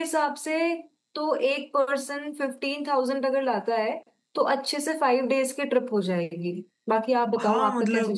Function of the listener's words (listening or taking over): taking over